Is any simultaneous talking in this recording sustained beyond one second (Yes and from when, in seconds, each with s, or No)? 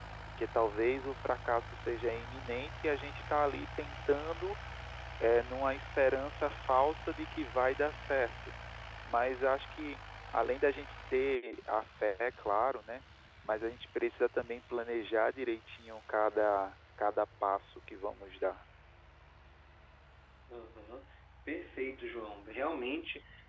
No